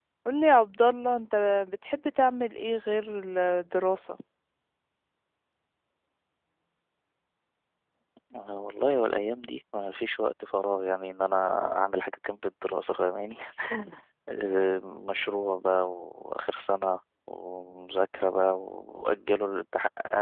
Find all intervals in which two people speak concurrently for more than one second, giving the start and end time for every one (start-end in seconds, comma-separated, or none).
none